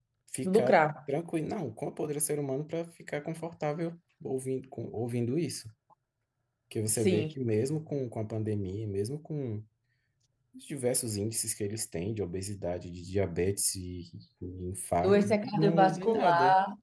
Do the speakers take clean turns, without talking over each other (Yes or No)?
No